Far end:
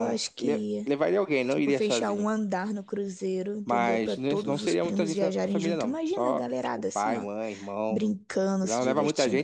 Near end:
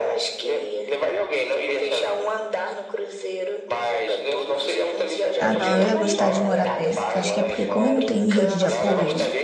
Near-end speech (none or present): present